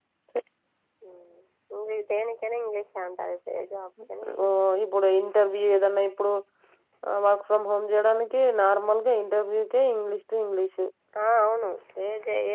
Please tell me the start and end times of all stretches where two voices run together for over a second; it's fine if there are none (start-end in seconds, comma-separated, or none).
none